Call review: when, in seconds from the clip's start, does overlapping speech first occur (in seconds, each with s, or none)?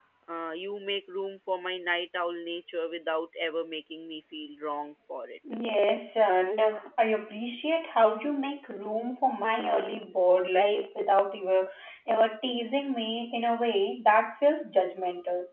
none